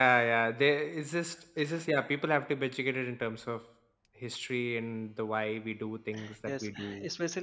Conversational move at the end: taking over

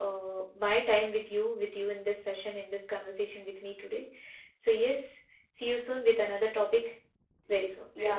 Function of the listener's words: taking over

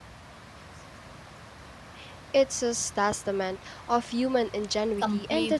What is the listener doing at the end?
taking over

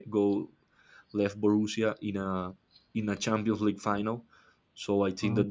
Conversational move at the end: listening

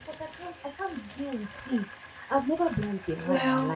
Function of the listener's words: listening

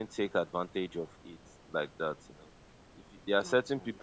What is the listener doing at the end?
listening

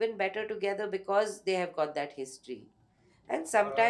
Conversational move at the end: listening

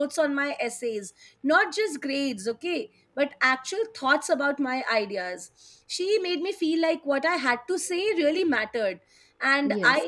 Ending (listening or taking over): listening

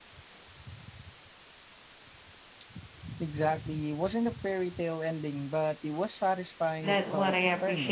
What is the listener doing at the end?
taking over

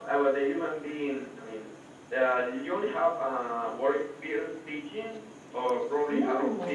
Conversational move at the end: listening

